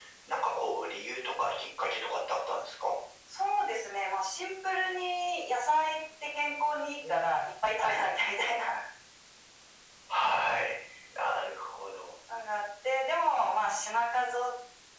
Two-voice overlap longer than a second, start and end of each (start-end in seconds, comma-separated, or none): none